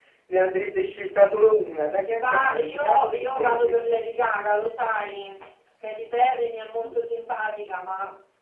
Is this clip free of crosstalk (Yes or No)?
No